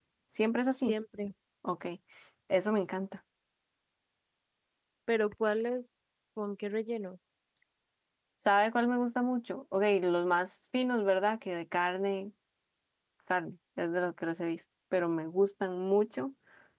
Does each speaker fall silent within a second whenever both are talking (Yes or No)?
Yes